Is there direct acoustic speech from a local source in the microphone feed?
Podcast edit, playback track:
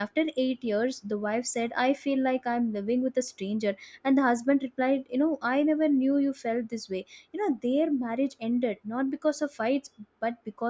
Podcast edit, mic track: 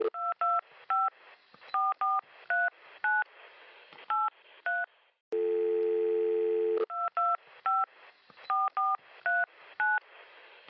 No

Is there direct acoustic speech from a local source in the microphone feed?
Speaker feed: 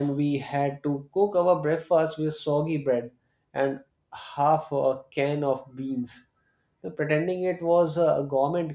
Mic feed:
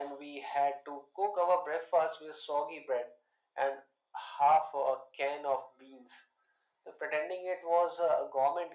No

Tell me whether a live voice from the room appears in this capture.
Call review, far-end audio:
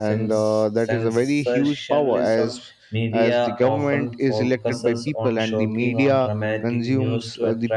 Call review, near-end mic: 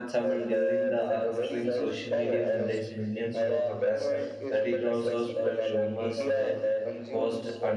Yes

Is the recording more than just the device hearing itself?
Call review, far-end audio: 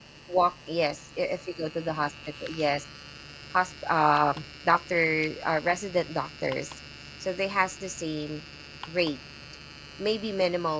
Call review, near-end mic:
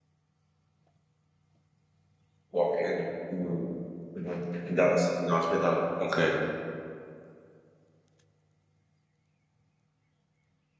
Yes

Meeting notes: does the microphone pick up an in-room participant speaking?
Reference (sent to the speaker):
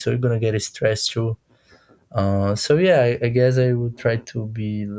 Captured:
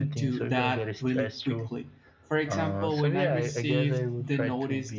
Yes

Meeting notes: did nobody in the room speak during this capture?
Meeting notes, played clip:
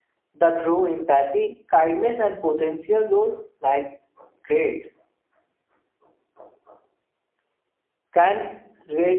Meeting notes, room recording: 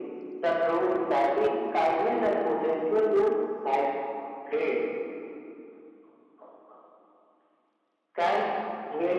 Yes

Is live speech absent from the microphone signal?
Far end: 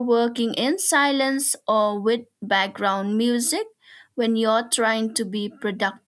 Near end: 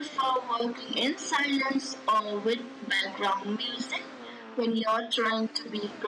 Yes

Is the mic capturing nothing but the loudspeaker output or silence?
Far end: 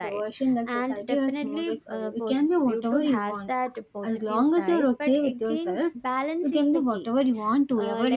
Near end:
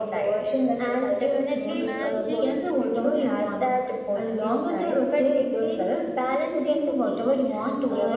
No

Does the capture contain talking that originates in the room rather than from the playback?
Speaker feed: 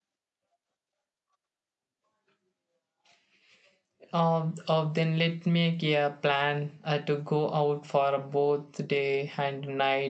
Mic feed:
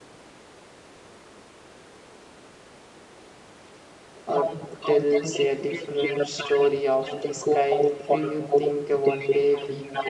Yes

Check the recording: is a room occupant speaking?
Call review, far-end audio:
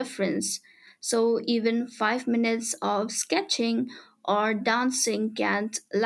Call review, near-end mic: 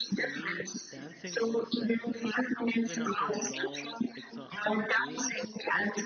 Yes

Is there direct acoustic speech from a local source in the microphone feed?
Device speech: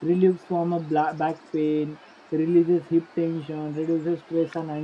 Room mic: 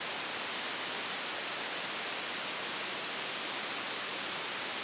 No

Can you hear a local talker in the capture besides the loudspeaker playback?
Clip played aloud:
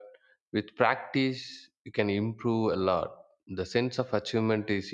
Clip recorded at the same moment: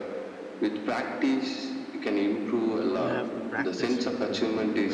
Yes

